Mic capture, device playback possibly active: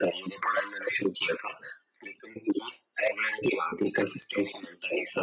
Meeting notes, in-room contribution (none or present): none